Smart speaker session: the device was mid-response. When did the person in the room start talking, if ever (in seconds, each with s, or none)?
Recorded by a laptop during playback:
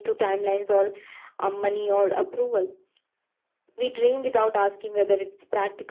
none